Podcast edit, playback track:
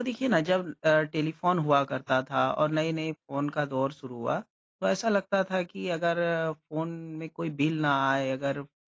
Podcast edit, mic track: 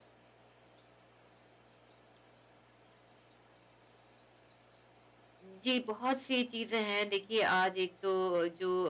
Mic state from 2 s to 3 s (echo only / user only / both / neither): neither